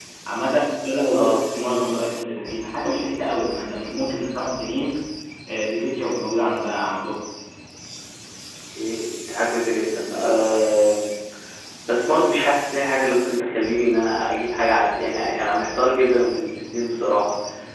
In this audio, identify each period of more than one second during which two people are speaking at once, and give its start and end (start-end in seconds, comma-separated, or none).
none